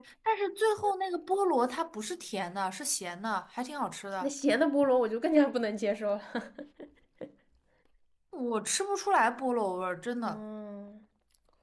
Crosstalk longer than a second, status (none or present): none